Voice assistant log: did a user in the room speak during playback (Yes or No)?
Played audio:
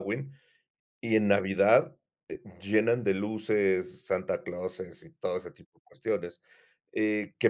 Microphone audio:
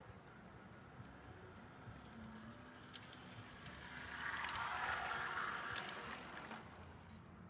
No